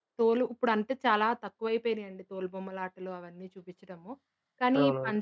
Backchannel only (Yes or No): Yes